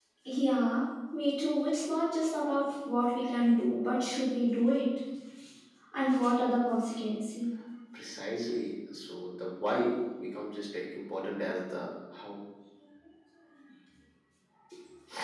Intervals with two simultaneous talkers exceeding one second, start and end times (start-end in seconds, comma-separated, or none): none